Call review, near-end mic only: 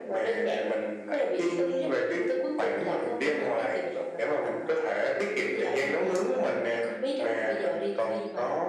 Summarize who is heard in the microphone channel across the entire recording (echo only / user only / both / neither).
echo only